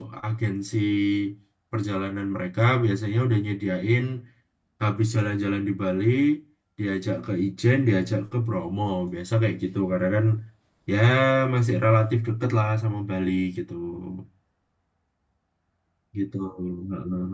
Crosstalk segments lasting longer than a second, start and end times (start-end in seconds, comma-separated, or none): none